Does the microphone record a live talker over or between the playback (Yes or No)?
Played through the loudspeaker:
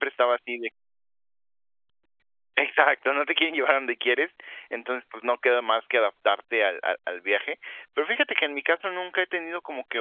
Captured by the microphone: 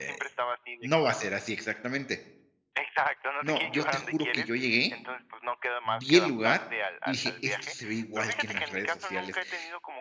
Yes